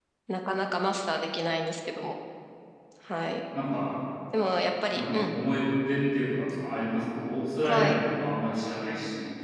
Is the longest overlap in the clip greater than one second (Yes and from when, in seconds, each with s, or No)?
No